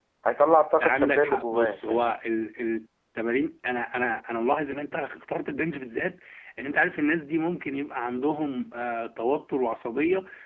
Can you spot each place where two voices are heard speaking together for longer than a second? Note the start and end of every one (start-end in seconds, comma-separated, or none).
0.8-2.2